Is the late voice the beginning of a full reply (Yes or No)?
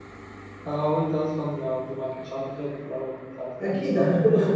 Yes